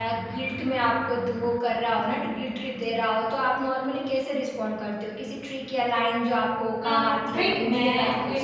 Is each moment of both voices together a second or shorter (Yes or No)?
No